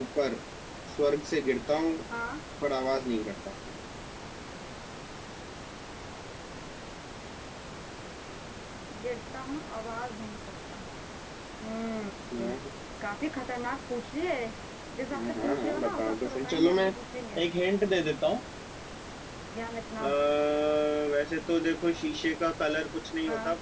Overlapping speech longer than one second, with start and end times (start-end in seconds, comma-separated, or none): 15.2-16.9